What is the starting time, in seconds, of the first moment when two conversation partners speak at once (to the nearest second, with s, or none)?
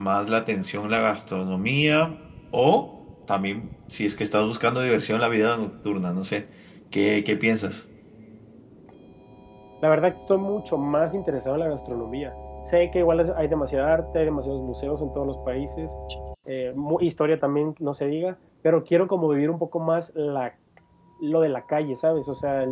none